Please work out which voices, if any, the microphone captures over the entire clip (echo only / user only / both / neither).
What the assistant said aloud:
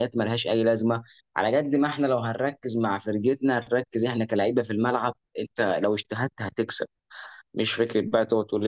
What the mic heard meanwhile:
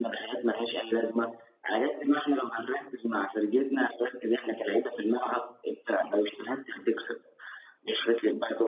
echo only